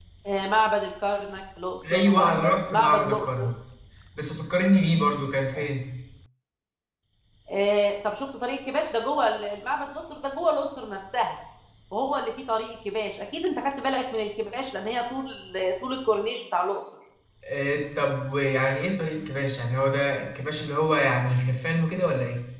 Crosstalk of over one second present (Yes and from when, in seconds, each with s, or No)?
Yes, from 1.8 s